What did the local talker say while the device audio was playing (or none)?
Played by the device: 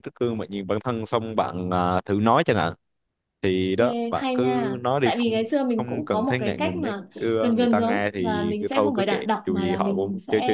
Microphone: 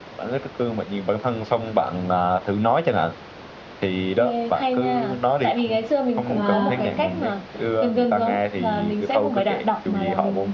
và